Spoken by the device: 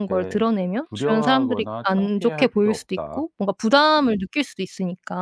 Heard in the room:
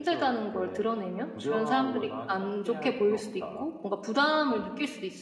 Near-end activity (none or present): none